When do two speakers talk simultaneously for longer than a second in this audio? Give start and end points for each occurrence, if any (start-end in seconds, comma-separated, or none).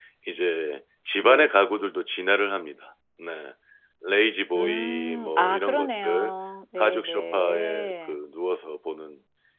4.6-6.3, 6.8-8.2